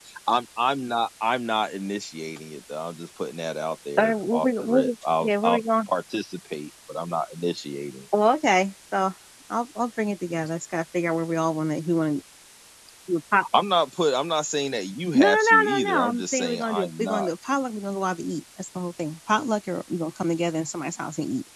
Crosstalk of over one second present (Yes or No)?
Yes